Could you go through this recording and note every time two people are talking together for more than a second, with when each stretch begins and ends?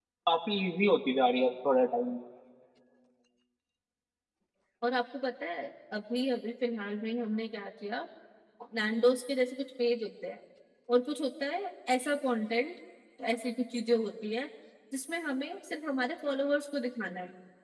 none

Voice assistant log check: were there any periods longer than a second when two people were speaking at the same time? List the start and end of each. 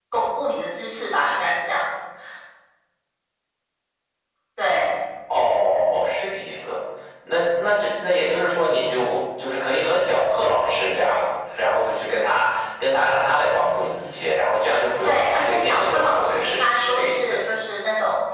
15.0-17.4

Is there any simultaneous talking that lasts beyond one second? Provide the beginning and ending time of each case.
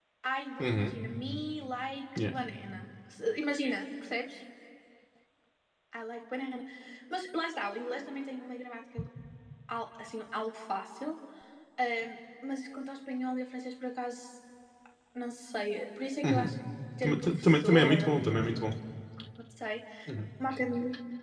17.0-18.3

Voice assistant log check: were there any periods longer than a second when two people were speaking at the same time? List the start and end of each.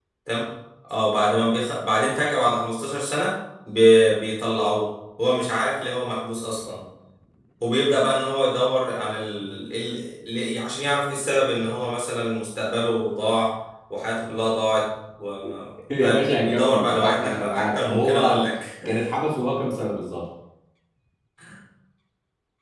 16.0-18.4

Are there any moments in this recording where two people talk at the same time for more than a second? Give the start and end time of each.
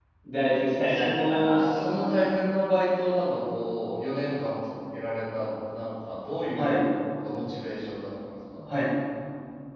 0.8-2.2

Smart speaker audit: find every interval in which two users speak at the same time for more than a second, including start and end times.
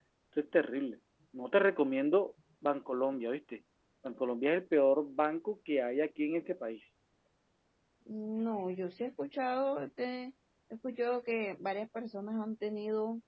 none

